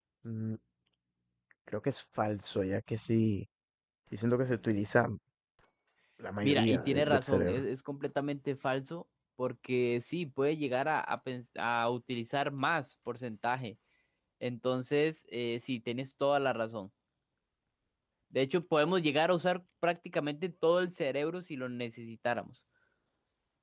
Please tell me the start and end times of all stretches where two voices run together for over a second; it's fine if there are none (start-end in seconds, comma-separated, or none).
6.4-7.6